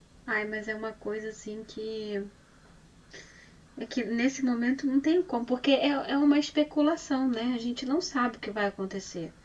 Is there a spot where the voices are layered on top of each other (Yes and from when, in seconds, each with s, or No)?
No